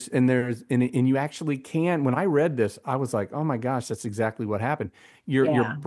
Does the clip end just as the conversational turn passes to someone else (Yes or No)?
No